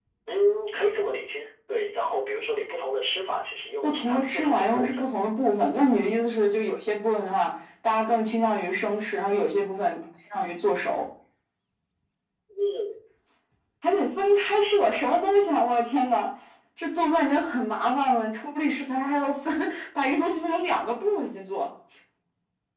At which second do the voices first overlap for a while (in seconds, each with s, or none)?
3.8 s